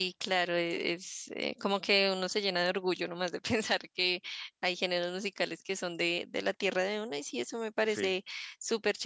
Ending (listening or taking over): listening